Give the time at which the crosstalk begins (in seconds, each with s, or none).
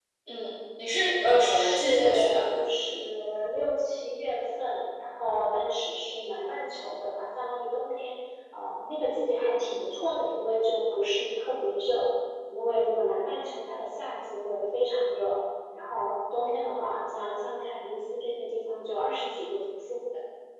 1.2 s